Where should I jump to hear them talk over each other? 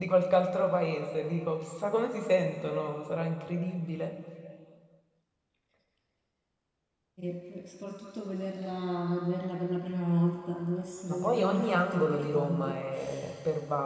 11.1 s

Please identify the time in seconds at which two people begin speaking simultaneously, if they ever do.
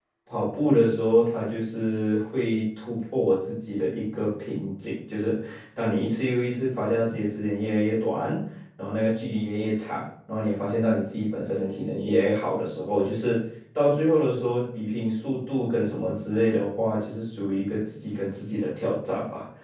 none

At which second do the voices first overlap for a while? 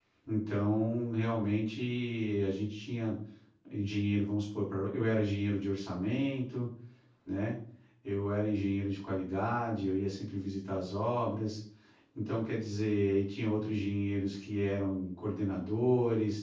none

